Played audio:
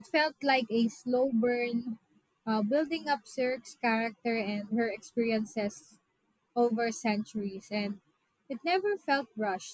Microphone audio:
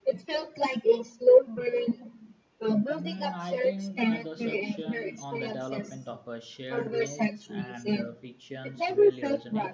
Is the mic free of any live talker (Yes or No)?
No